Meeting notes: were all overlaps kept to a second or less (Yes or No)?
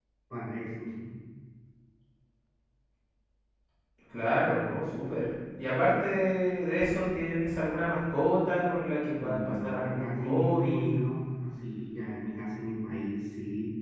No